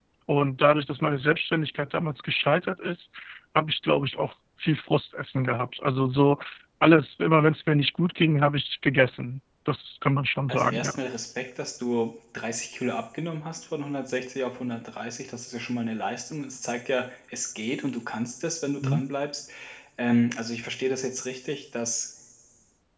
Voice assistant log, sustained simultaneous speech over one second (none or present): none